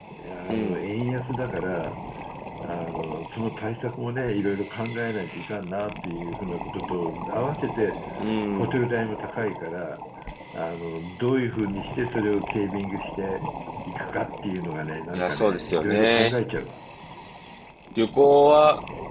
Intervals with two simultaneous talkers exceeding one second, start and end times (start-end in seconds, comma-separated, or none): 15.1-16.4